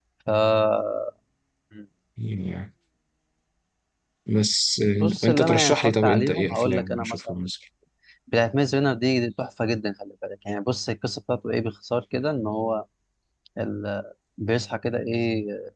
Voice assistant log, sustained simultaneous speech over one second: present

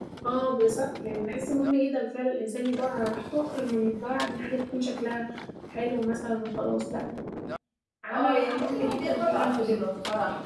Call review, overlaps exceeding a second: present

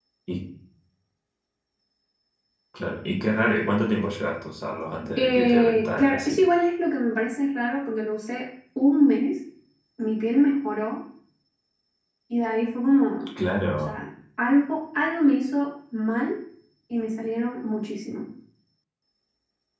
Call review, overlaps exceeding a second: present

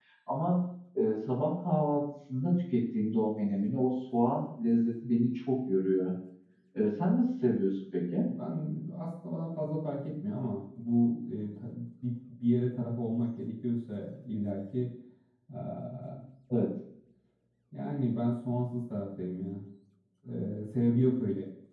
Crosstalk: none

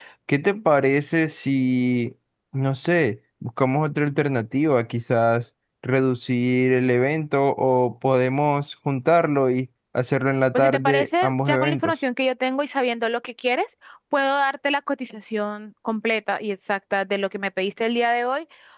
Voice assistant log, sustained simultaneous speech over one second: present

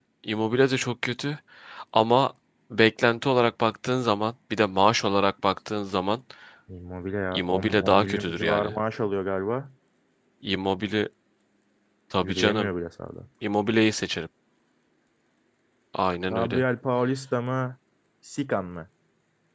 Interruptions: present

